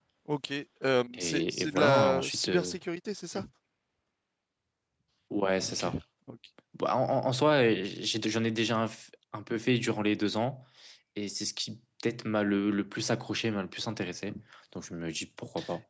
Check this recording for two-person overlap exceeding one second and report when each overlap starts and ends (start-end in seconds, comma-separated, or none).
1.2-2.8